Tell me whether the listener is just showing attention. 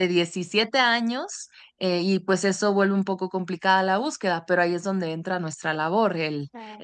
Yes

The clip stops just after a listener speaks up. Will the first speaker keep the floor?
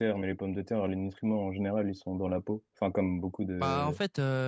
No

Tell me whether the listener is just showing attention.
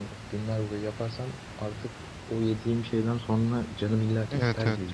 No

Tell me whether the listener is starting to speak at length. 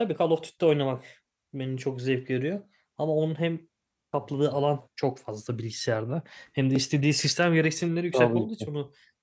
No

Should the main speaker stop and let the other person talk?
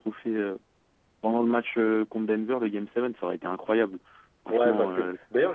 Yes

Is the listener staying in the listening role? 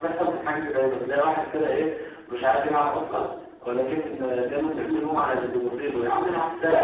No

